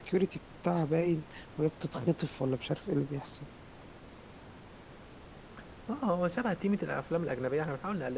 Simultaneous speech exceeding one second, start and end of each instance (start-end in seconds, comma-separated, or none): none